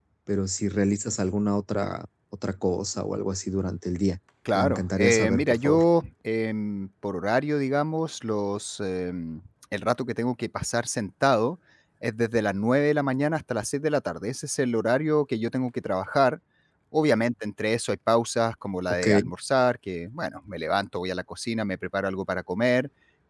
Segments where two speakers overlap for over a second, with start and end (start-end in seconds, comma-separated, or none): 4.6-5.8